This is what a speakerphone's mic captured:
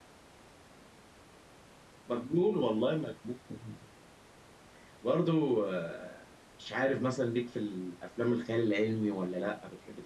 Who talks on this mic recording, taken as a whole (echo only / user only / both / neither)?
user only